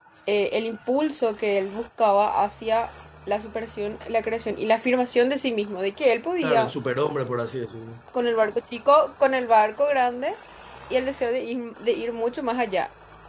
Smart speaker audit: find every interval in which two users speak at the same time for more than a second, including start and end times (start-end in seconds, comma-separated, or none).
none